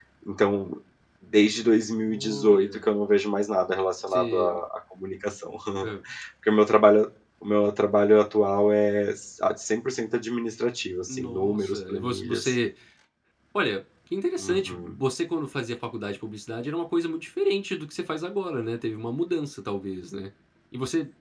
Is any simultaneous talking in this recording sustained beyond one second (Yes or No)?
Yes